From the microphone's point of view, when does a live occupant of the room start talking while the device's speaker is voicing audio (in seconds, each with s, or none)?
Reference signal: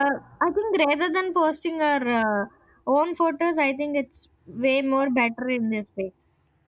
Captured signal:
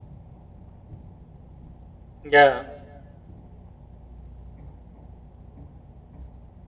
2.2 s